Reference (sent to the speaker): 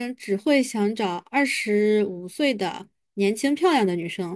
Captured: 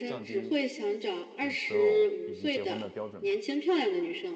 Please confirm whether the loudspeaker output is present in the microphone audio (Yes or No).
Yes